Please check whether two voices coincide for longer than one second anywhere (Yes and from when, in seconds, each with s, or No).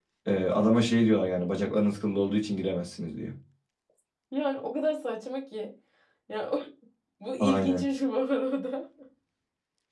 No